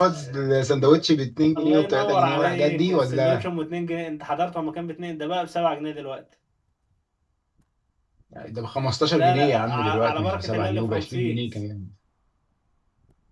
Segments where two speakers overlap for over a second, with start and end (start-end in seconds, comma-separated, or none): 1.6-3.4, 9.1-11.4